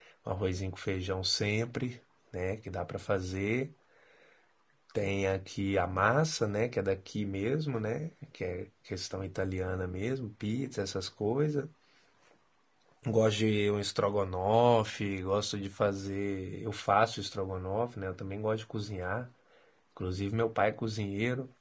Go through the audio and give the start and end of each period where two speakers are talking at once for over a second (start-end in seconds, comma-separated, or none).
none